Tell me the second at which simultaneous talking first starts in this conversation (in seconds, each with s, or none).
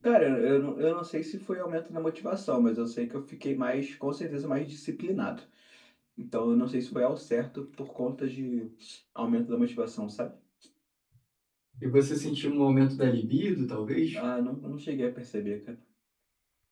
none